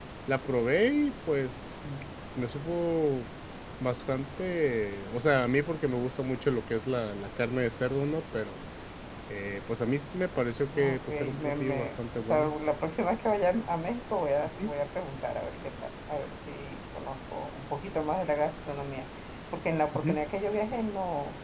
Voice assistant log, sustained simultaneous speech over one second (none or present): present